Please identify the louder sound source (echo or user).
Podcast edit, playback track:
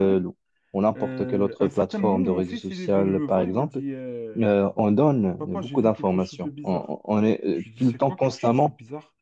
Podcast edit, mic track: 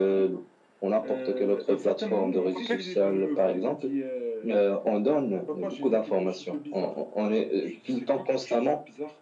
echo